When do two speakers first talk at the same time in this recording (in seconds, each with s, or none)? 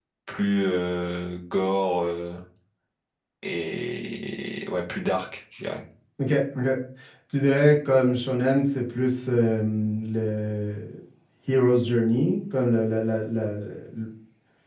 none